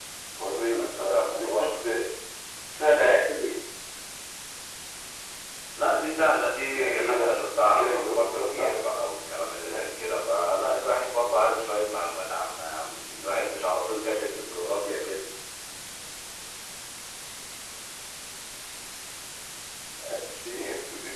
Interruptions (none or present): present